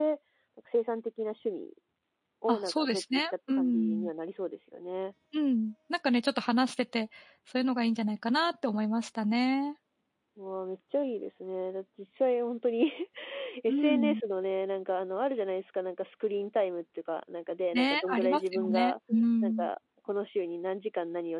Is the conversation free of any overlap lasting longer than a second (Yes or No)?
No